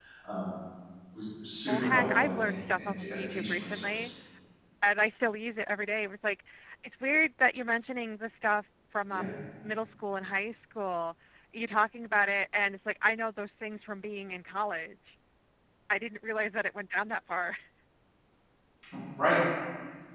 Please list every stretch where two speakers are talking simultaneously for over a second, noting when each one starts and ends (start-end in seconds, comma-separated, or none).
1.7-4.1